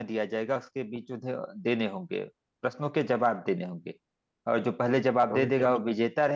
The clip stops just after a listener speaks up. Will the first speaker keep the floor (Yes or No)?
Yes